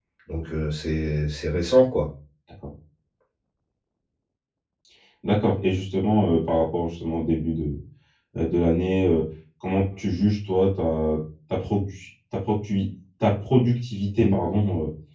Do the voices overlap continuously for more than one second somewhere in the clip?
No

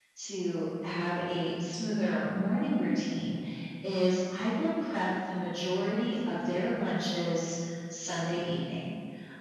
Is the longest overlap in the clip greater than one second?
No

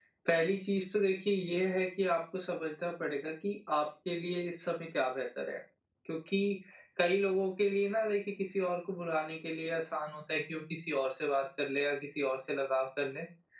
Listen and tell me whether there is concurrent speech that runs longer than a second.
No

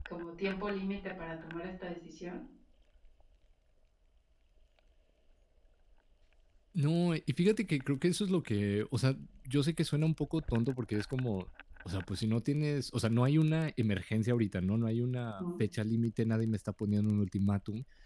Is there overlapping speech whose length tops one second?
No

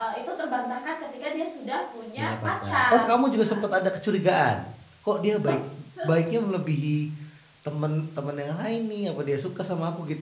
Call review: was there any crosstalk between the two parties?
Yes, from 2.2 s

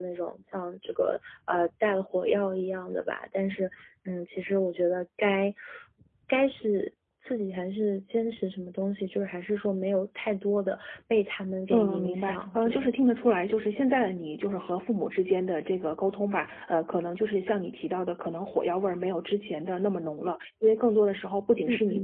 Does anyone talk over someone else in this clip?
Yes, from 11.7 s

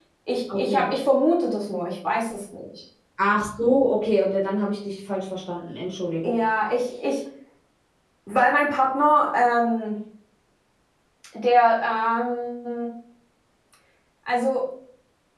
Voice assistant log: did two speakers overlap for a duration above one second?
No

